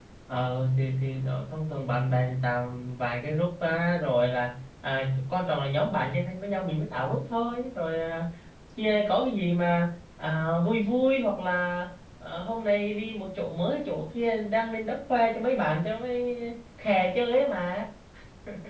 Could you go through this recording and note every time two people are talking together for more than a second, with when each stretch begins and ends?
none

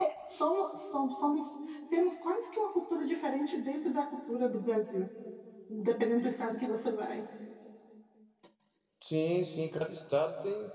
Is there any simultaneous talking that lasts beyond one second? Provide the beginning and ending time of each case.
none

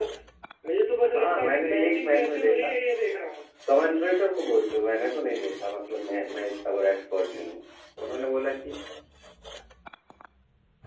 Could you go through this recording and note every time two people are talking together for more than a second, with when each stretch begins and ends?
1.1-2.7

